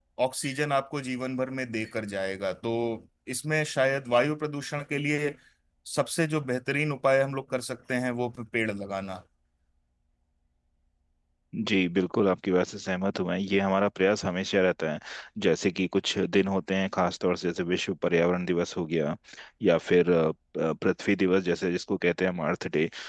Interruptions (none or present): none